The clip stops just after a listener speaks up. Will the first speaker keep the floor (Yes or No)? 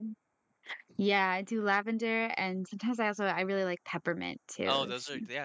No